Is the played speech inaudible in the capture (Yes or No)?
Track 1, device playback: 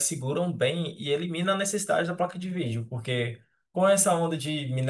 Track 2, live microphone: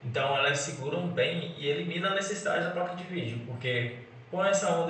No